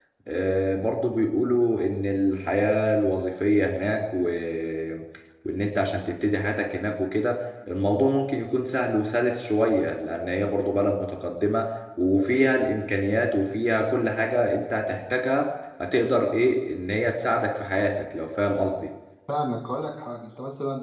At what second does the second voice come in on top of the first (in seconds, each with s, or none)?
none